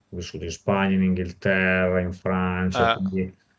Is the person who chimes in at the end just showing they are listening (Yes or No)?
Yes